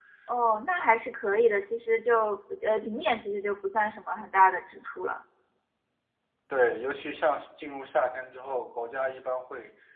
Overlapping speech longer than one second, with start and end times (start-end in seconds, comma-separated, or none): none